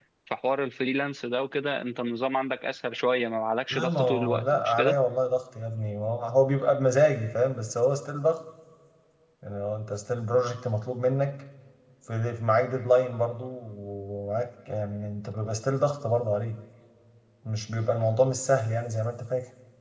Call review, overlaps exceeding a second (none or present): present